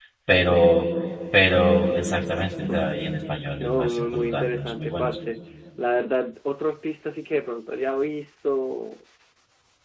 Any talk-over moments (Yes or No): Yes